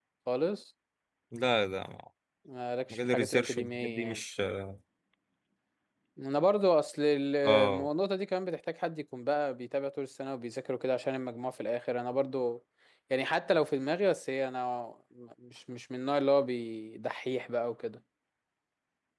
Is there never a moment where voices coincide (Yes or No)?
No